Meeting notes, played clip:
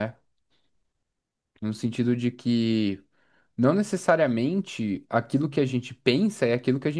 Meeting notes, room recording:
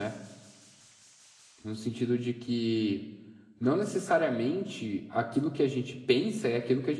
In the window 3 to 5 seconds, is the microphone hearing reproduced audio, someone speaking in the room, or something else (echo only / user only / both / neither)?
echo only